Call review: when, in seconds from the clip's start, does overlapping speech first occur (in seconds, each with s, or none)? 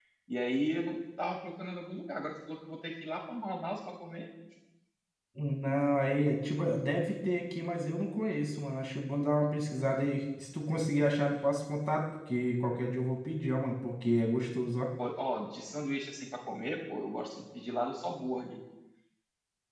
none